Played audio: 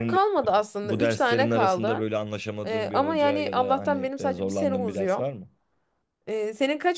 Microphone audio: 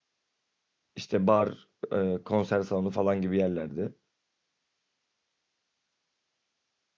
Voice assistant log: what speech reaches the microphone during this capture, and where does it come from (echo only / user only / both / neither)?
user only